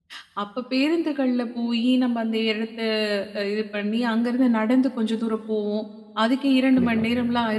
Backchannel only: Yes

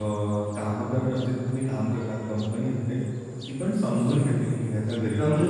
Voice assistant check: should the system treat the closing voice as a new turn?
Yes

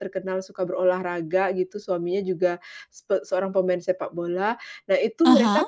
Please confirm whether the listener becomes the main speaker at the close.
No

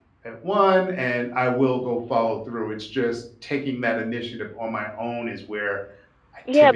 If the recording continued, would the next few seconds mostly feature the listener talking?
Yes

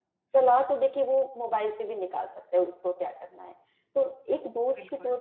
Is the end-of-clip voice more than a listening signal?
No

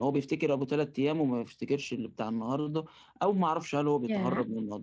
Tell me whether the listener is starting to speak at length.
No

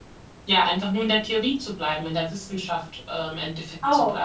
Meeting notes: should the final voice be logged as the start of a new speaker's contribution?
Yes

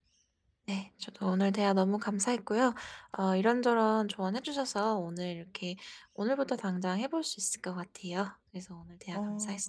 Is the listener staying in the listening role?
No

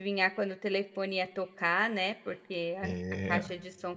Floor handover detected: No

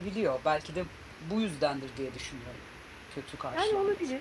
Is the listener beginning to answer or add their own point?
Yes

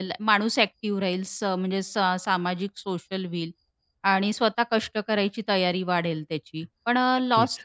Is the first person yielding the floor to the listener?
No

